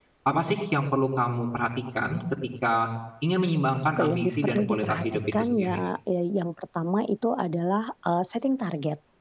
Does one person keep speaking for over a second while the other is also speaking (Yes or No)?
Yes